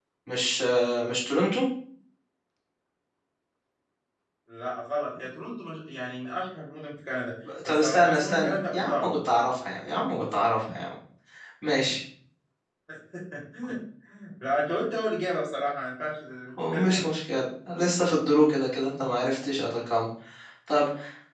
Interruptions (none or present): present